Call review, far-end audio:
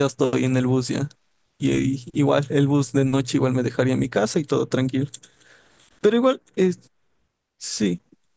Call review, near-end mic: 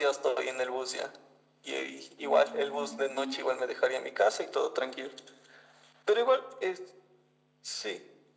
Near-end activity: present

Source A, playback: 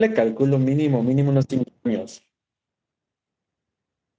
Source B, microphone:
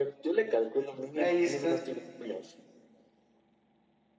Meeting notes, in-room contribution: present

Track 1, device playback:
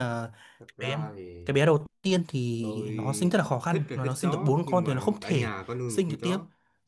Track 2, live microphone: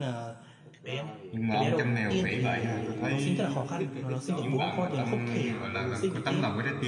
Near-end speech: present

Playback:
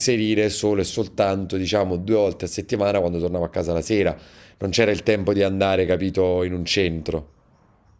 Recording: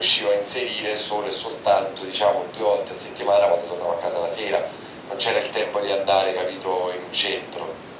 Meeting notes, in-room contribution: none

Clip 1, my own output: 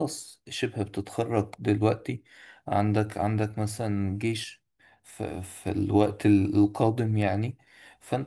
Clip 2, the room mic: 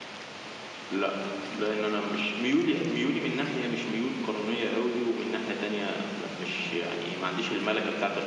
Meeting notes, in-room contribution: present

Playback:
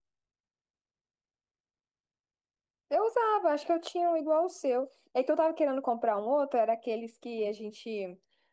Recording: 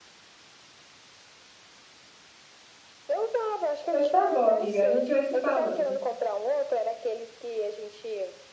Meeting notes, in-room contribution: present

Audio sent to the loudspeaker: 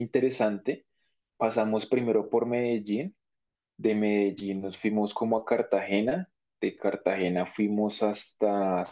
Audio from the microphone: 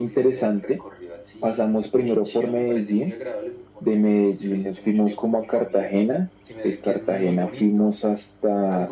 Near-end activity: present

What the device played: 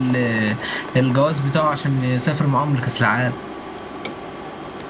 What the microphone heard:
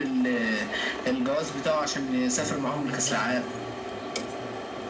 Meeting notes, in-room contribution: present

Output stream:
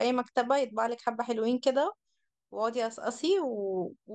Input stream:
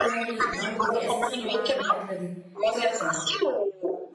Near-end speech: present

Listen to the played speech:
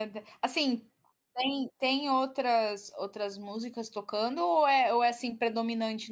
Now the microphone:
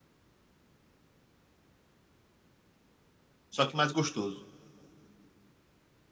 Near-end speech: present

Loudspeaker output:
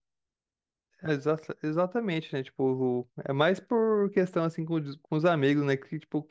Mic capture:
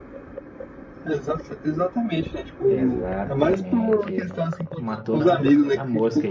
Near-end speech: present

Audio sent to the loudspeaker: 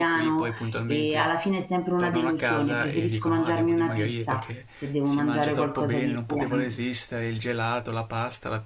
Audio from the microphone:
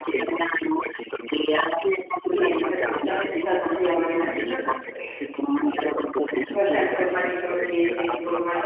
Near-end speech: present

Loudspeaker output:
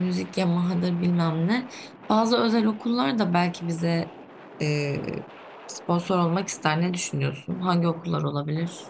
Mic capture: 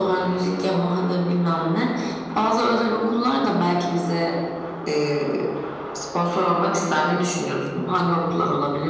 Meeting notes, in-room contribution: none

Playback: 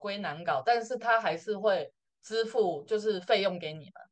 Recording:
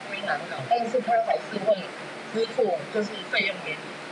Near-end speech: none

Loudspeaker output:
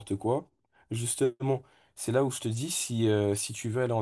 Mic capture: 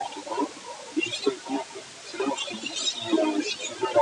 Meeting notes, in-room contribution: none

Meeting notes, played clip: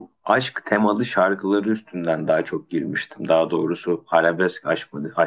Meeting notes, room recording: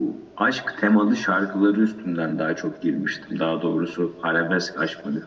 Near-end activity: none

